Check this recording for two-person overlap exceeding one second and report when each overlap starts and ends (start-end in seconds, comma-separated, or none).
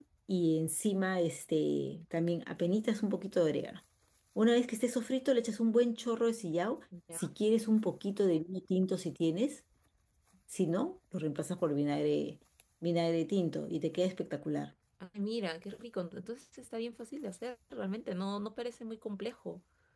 none